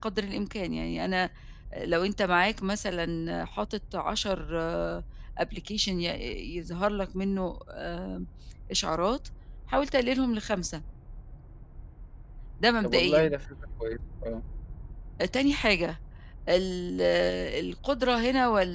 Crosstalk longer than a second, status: none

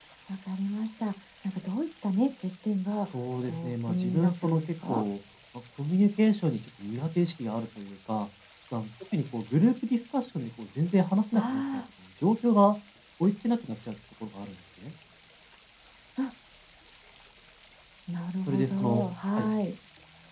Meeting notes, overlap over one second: present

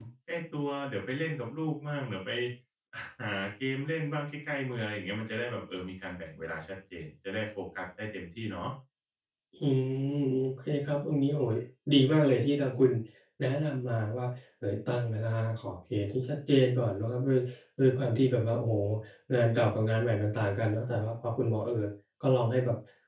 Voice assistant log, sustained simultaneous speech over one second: none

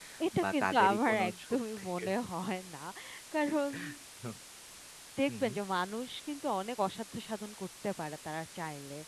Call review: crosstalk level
present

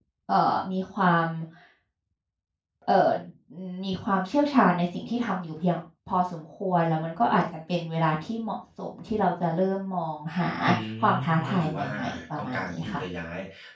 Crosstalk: present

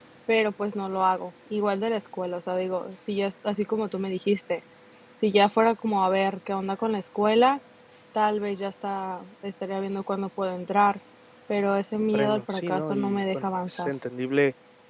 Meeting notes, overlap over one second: present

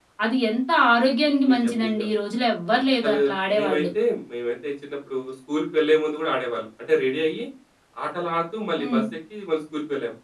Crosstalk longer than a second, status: none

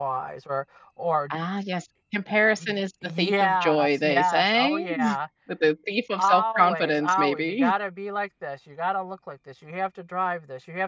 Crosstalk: present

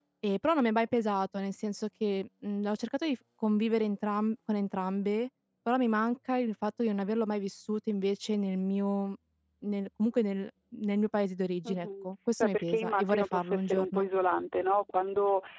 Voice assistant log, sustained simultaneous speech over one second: present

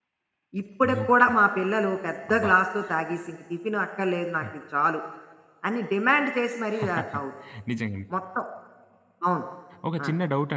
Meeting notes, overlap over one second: none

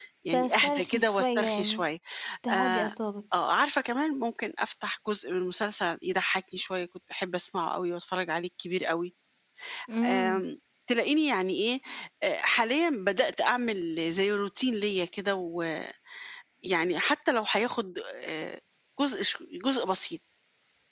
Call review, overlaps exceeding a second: present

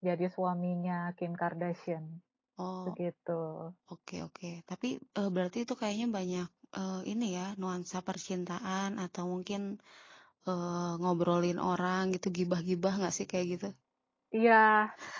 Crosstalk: none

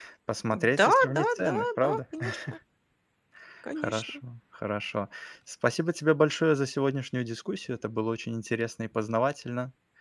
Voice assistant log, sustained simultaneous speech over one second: present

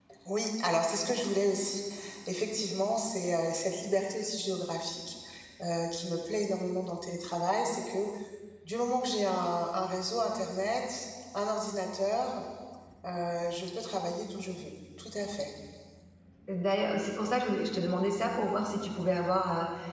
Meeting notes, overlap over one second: none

